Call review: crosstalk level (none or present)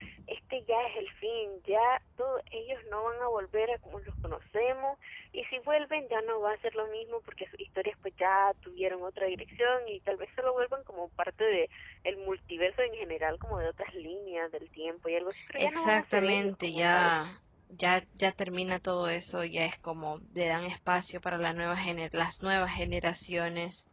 present